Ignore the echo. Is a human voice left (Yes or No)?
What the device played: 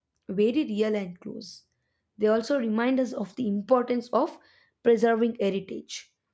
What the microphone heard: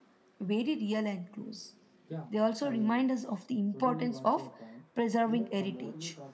Yes